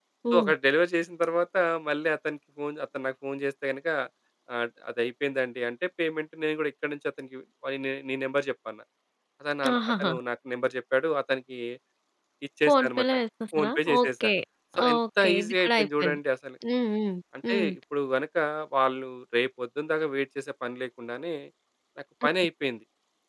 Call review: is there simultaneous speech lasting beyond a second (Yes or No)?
Yes